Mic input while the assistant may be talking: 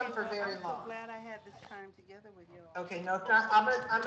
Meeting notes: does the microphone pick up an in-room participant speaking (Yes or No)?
Yes